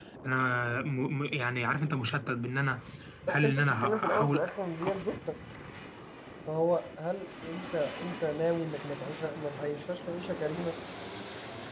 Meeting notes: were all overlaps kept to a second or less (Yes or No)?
No